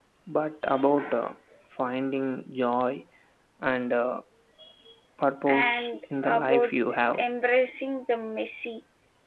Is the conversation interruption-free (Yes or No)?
No